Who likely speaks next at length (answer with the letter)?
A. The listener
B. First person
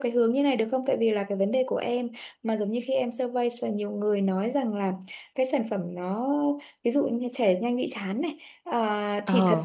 B